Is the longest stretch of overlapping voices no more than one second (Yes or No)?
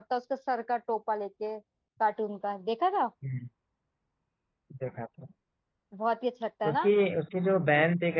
Yes